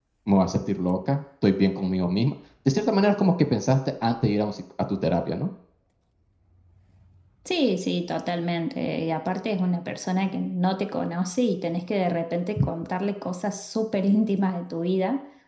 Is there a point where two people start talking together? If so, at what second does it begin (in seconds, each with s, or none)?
none